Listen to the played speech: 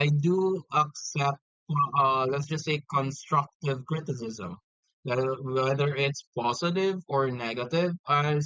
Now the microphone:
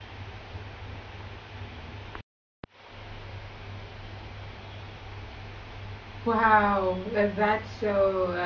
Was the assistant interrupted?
Yes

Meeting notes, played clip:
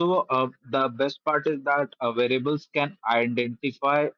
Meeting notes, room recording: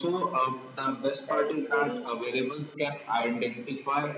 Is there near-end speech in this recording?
Yes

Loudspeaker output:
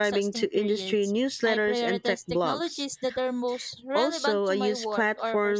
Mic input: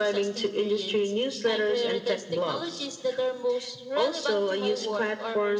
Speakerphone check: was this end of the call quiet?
Yes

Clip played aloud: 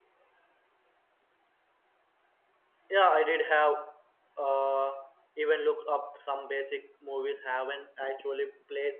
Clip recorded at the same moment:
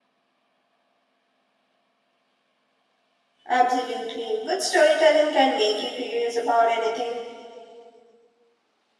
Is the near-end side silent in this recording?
No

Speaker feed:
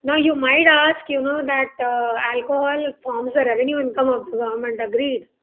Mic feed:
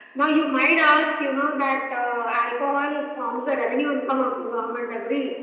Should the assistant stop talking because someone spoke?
No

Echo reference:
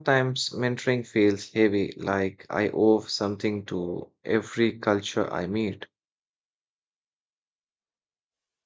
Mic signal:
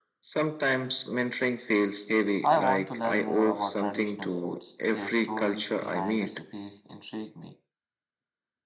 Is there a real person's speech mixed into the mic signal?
Yes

